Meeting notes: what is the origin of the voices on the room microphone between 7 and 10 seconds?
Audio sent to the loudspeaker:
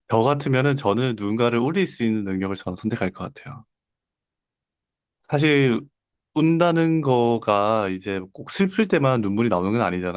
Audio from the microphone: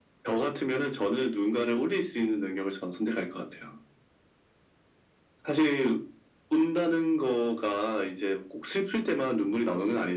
echo only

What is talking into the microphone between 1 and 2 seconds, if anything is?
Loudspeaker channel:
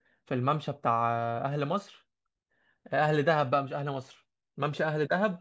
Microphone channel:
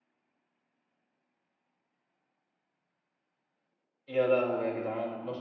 neither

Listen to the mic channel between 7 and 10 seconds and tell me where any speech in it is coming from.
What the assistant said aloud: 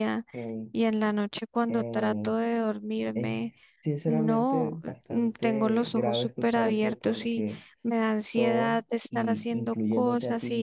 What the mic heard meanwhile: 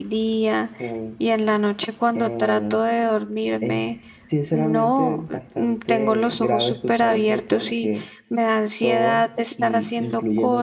echo only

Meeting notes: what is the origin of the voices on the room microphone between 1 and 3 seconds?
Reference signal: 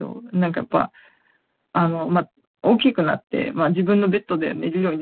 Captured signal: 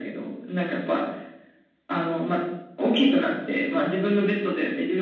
echo only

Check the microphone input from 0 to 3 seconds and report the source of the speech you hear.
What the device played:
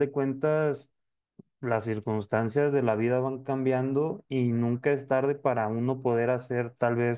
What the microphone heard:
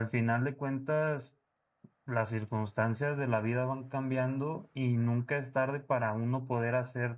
echo only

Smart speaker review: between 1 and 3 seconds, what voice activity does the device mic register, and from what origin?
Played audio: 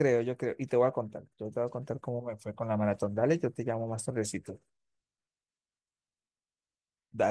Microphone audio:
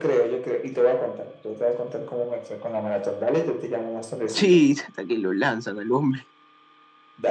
echo only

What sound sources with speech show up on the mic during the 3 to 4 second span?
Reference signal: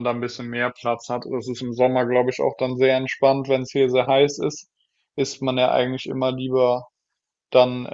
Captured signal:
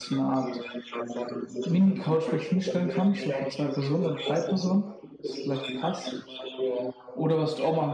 both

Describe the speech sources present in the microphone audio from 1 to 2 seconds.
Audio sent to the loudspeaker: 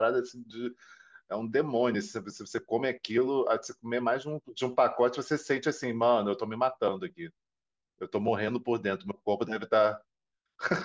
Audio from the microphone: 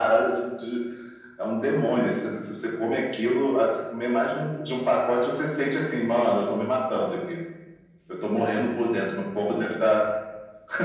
echo only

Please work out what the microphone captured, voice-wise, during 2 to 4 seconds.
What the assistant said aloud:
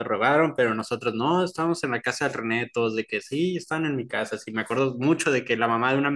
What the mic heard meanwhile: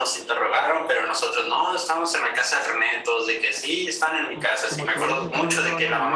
echo only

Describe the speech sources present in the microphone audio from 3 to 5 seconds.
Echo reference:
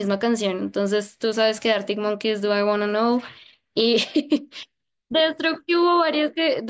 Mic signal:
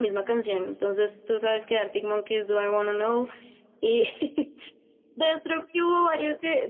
echo only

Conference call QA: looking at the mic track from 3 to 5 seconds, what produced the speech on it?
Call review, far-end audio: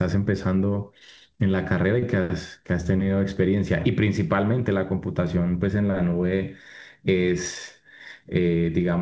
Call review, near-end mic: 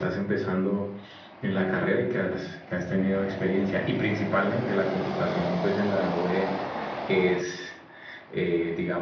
echo only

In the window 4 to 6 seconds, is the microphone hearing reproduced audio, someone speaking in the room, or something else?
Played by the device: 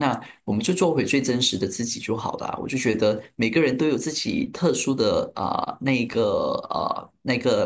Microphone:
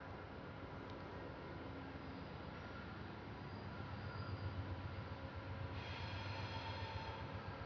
neither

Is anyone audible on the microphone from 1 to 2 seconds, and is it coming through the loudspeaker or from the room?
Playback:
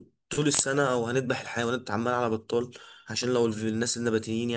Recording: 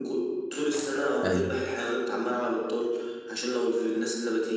both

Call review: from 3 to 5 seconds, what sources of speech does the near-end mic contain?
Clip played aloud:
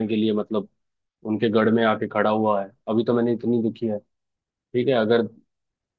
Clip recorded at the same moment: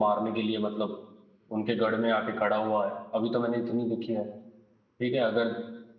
echo only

